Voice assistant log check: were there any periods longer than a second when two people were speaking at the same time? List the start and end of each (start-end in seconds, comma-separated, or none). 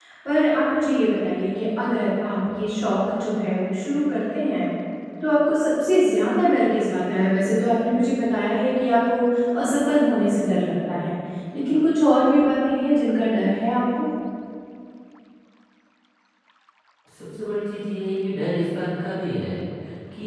none